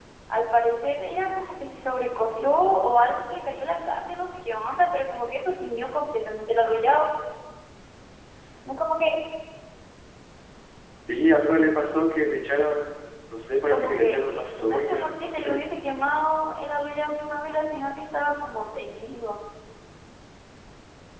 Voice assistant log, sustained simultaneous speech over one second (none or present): present